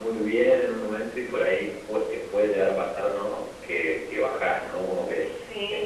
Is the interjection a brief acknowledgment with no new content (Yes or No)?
Yes